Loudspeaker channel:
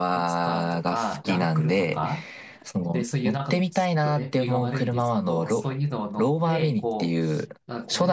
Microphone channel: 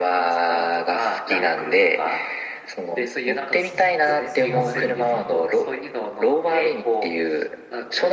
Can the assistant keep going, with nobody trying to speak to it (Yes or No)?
No